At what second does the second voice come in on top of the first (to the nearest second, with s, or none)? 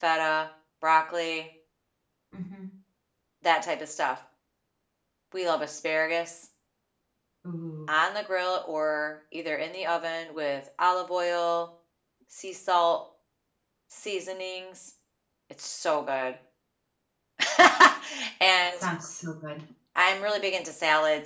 none